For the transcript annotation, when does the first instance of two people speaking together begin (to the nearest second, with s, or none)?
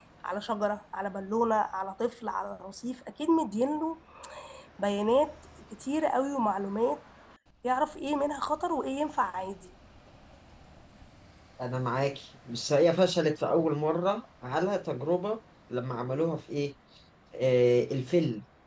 none